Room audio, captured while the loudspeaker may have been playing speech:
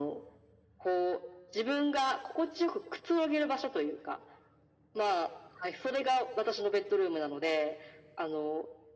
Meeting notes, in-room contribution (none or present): none